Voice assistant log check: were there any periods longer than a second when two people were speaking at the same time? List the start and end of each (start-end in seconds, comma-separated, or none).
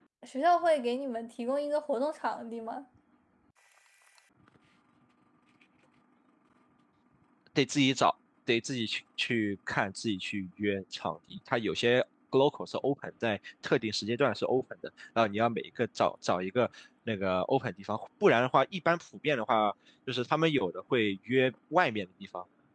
none